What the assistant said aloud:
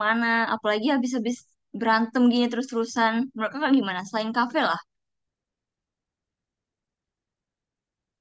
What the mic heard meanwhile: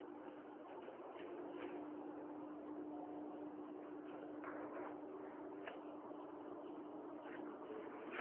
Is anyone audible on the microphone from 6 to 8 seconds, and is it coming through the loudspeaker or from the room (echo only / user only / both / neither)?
neither